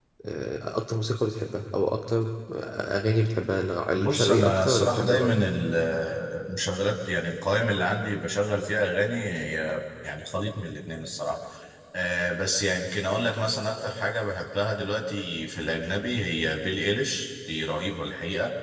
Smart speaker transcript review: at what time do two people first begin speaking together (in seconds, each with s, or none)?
4.0 s